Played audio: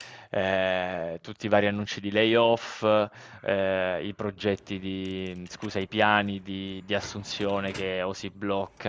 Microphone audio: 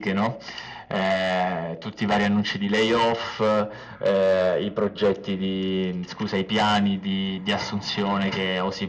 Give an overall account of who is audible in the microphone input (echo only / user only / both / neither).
echo only